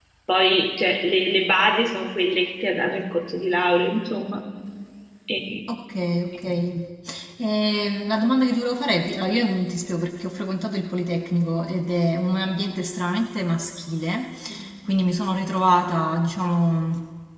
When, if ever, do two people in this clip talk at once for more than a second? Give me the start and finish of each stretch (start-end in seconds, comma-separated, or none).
none